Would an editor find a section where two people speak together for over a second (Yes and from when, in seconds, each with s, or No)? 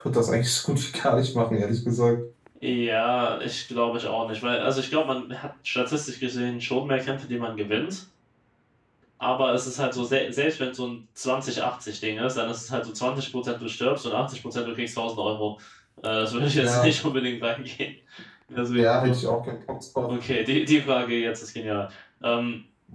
No